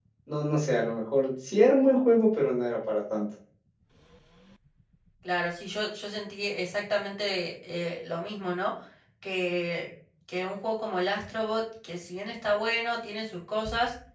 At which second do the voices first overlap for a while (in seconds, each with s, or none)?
none